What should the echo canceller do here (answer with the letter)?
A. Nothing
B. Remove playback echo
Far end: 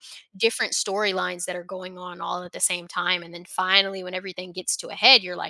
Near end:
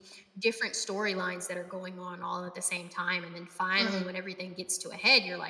B